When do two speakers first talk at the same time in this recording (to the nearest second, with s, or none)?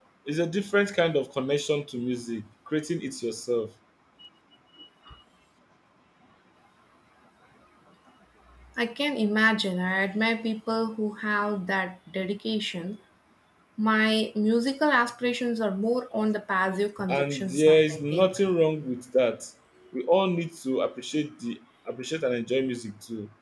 17 s